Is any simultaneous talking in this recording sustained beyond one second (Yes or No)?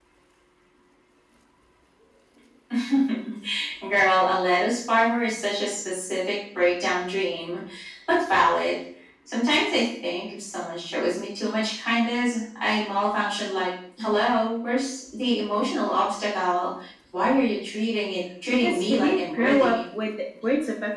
Yes